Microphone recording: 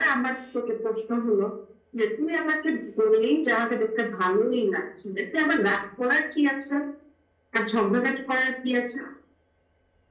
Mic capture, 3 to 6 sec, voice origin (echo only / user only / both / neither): echo only